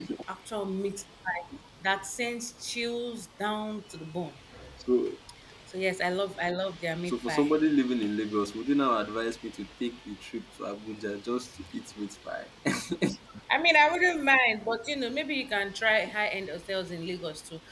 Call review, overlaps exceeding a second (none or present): none